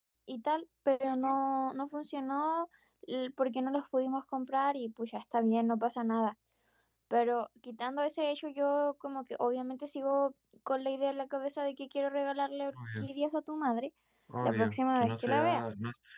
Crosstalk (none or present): present